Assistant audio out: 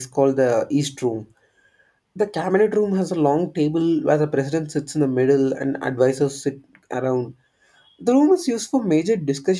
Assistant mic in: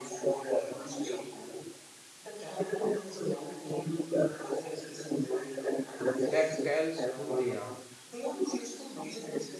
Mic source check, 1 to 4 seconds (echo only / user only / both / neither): echo only